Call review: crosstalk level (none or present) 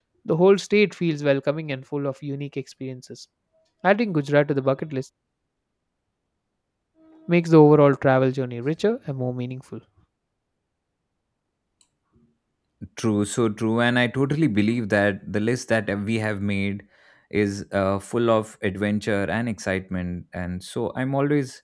none